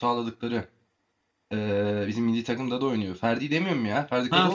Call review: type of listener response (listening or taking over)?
taking over